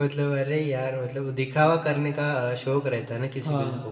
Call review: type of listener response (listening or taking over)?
listening